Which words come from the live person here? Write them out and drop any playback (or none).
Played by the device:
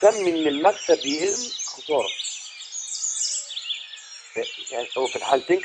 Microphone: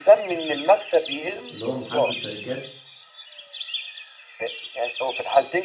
اللي هو محاسبة شركات